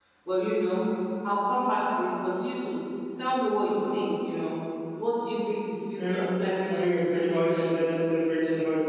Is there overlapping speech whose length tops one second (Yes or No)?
Yes